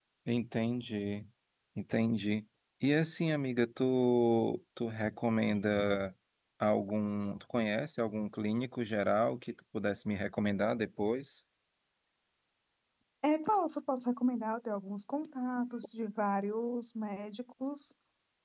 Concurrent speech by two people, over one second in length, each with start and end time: none

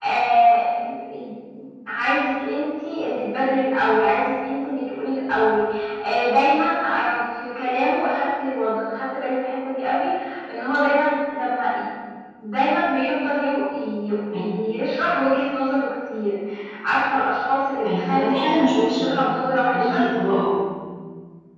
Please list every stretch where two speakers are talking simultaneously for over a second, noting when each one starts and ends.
17.8-19.1

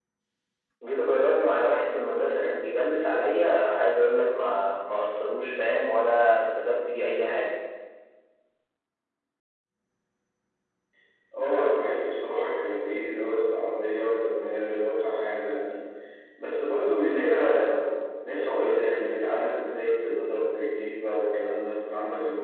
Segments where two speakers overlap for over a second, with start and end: none

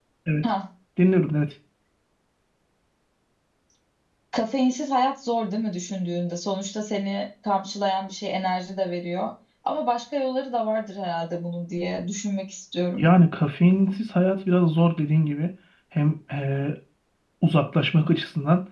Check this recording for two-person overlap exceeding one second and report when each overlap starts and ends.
none

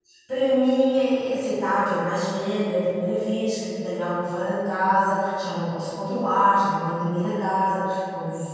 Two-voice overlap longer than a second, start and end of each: none

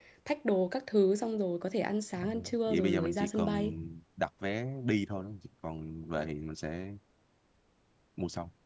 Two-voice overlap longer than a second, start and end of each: 2.2-3.7

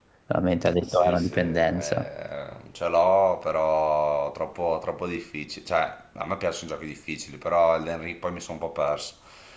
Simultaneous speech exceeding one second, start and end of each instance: 0.8-2.1

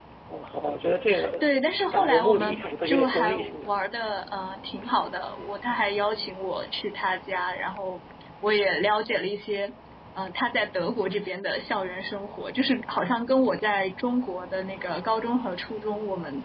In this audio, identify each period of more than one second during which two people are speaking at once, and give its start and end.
1.9-3.7

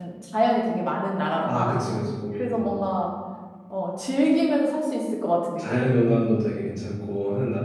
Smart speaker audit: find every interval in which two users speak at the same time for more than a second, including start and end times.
none

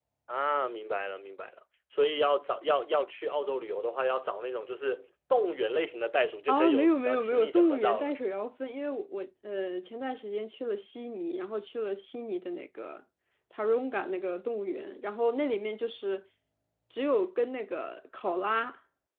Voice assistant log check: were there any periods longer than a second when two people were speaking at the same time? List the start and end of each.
6.5-8.1

